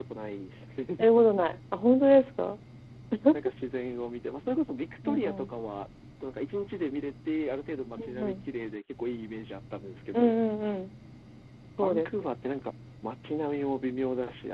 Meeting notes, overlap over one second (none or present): none